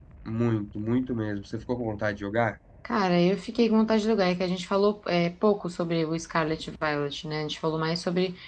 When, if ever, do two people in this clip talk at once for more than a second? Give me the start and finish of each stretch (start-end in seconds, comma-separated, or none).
none